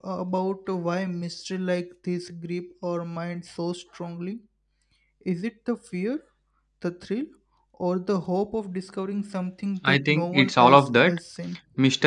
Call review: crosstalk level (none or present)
present